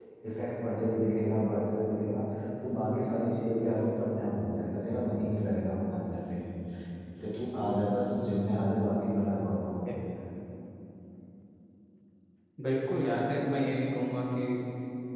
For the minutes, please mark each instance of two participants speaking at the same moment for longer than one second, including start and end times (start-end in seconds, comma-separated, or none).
none